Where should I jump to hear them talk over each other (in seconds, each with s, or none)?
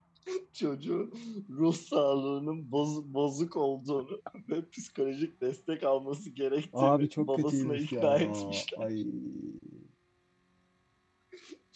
6.7 s